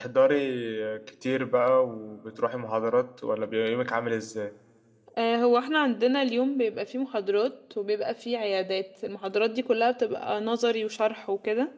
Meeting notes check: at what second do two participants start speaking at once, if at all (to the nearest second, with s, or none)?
none